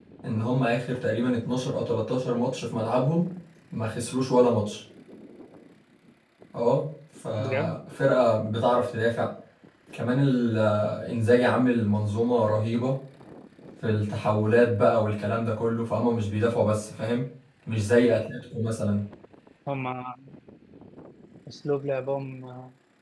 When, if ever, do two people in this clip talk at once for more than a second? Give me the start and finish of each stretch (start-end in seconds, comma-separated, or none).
none